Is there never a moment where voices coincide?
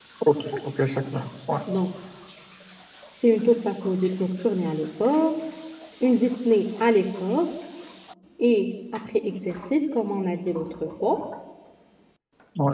Yes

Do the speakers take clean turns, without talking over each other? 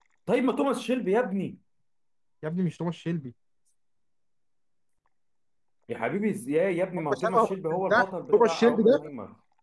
No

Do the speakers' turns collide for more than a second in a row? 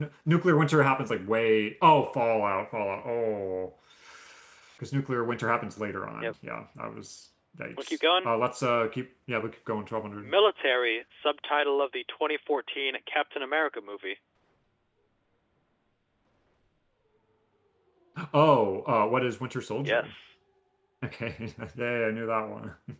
No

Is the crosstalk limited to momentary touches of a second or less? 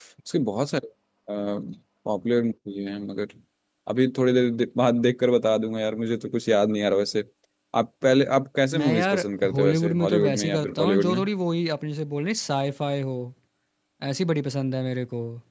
No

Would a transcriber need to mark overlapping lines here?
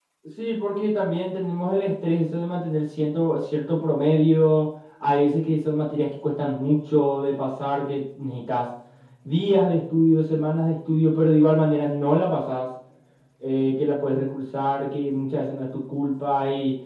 No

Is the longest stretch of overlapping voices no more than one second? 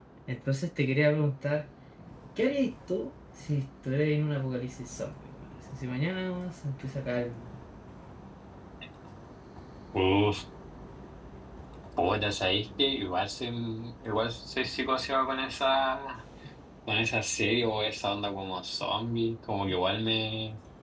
Yes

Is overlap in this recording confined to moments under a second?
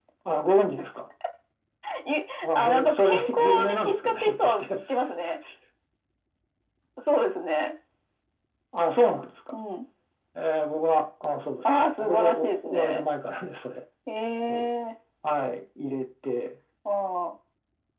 No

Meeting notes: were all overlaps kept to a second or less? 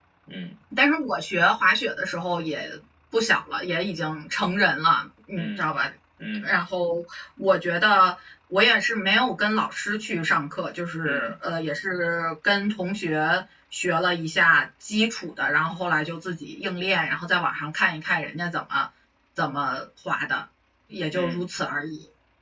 Yes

